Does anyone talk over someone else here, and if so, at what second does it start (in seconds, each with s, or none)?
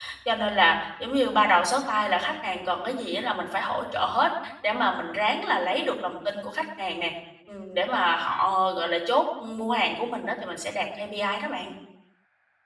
none